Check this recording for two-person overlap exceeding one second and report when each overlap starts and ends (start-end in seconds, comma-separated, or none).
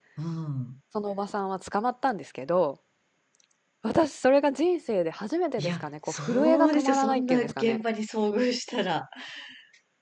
5.6-7.8